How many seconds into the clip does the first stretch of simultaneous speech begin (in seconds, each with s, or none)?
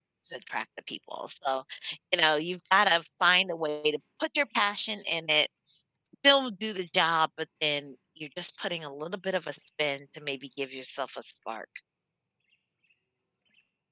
none